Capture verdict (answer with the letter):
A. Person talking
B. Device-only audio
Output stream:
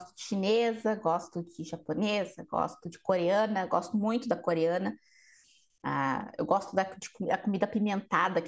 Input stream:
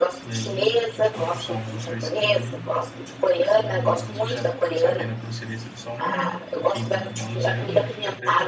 A